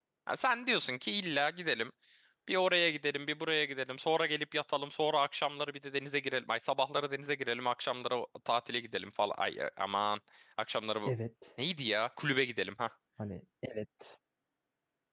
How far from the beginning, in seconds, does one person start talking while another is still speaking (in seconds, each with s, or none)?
none